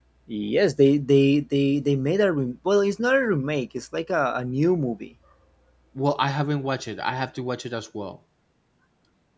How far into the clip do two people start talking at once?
none

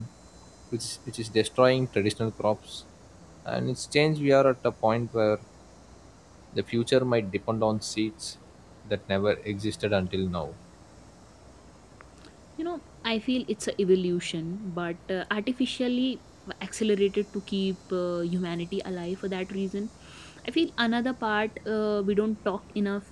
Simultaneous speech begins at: none

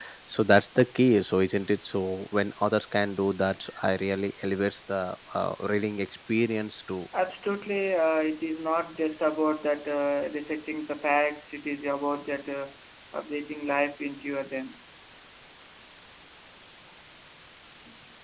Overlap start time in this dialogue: none

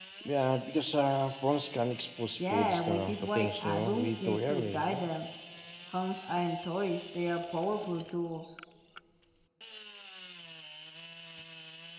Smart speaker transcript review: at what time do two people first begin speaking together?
2.4 s

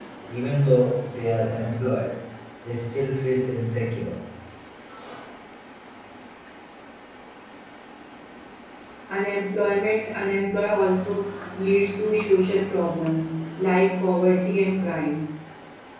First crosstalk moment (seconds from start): none

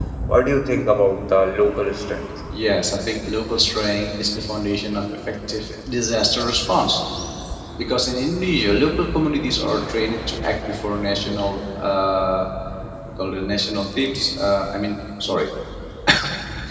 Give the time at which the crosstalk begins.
none

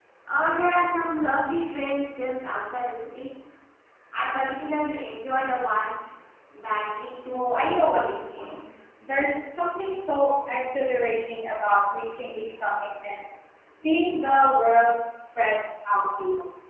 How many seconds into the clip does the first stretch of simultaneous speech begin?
7.3 s

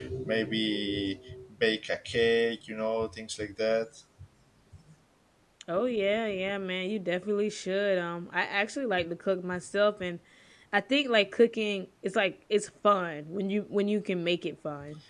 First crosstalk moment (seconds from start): none

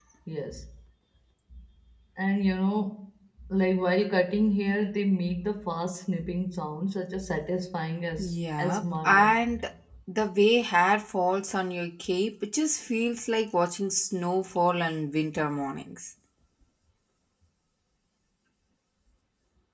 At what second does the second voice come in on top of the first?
8.2 s

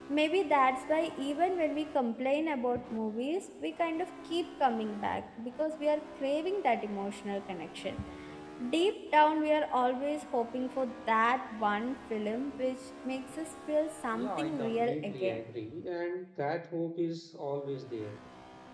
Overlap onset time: 14.1 s

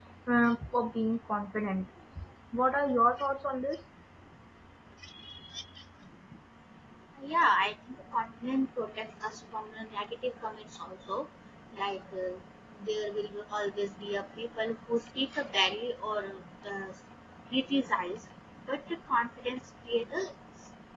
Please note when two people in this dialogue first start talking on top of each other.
none

